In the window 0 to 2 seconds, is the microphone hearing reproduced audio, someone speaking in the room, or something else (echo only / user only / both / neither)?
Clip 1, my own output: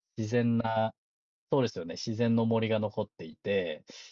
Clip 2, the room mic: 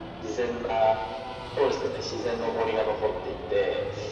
echo only